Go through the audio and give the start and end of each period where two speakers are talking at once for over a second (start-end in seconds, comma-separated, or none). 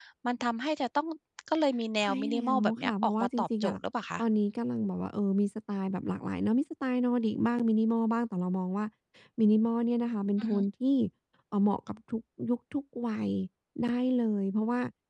2.0-3.8